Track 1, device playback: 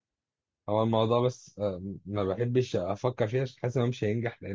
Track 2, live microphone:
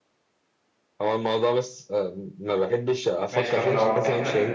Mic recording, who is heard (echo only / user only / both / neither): both